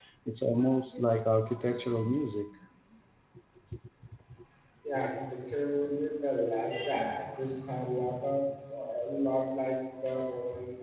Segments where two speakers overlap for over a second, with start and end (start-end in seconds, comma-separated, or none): none